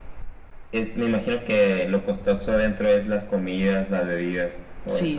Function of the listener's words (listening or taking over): taking over